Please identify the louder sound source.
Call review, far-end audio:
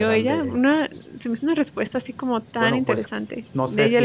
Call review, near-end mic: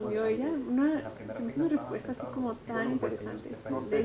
echo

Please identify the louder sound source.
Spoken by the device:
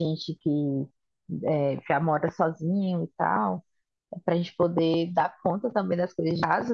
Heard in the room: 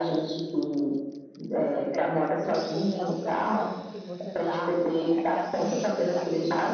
echo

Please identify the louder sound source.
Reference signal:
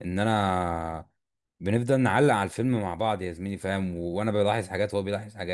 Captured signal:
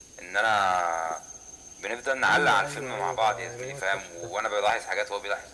echo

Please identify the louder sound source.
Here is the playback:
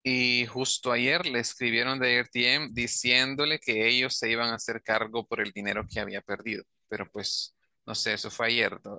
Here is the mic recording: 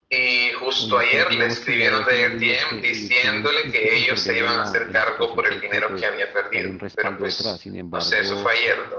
echo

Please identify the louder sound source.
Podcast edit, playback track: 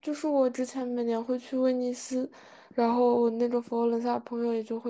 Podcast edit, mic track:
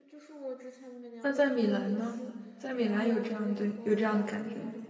user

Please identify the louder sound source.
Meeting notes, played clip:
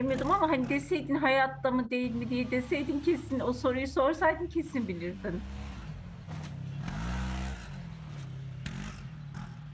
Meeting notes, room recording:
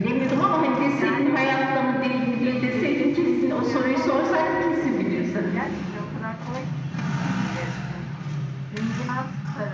echo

